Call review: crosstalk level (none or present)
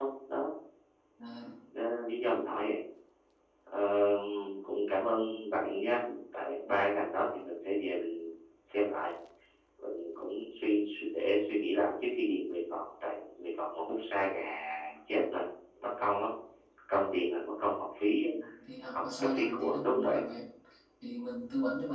present